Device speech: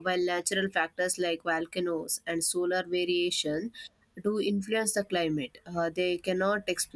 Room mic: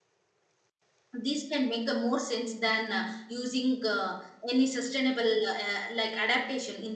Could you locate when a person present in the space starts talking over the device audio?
1.2 s

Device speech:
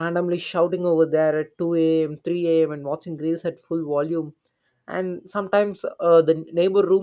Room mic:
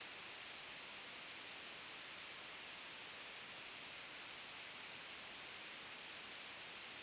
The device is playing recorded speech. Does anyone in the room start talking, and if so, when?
none

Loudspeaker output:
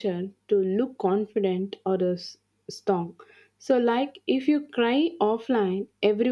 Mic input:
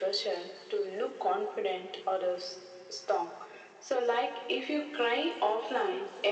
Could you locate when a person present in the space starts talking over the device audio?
none

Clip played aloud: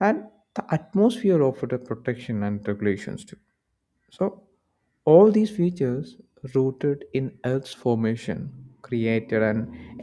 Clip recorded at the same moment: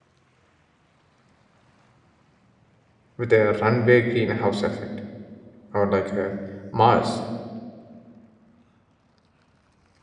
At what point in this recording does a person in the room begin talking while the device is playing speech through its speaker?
3.2 s

